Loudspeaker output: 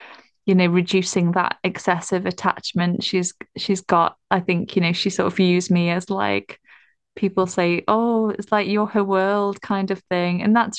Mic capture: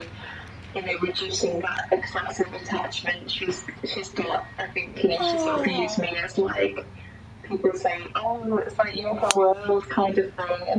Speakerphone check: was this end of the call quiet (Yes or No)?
No